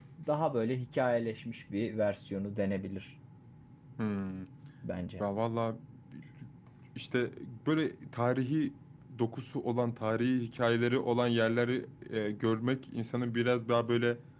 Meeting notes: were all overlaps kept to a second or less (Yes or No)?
Yes